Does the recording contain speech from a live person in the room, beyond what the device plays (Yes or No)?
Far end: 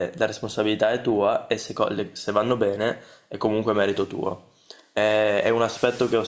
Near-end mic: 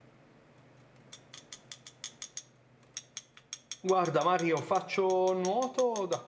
Yes